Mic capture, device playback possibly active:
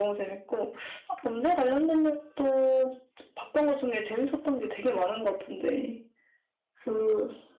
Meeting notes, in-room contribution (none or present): none